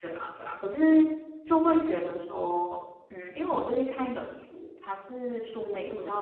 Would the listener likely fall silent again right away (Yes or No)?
Yes